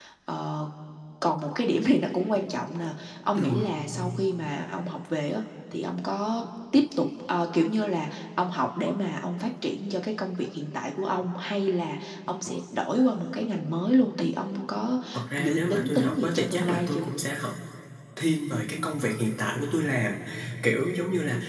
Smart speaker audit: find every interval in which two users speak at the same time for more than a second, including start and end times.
15.4-17.1

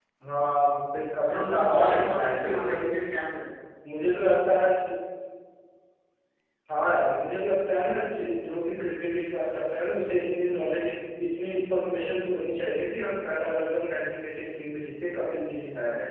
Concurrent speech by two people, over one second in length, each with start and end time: 1.3-2.8

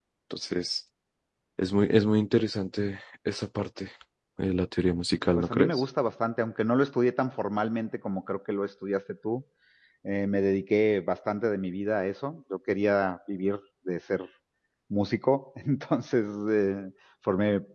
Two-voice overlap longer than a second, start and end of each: none

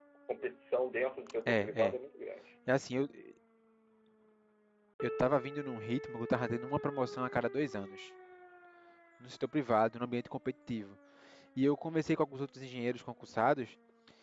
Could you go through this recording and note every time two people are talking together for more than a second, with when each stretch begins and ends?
none

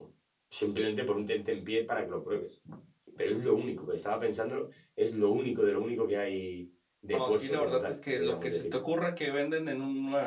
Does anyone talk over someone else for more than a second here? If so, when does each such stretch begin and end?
7.1-8.7

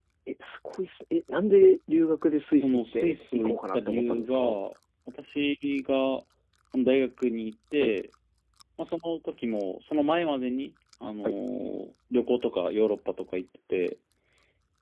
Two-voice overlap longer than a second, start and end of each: 2.5-4.6

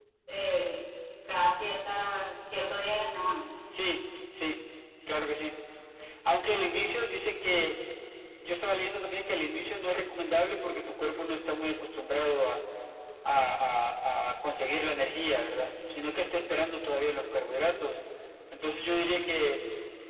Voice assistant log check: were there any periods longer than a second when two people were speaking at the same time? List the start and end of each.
none

